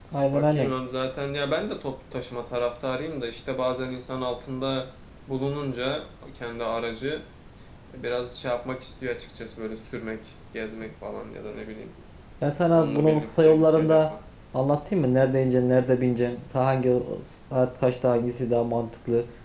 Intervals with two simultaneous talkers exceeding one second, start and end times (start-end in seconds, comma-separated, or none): 12.7-14.1